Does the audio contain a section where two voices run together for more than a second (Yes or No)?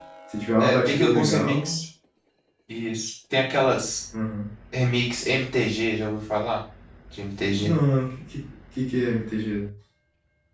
Yes